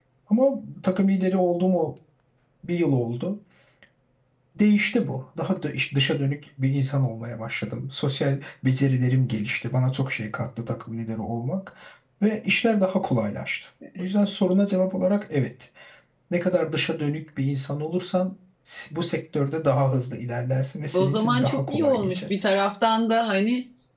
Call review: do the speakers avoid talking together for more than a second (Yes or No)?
No